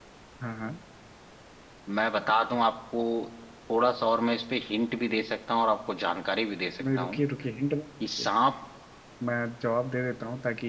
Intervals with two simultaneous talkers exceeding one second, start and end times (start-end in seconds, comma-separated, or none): none